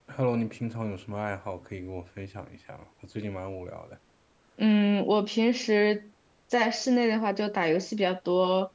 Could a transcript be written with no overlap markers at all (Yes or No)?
Yes